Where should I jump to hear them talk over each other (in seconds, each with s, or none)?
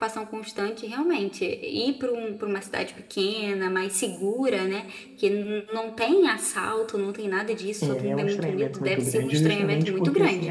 7.8 s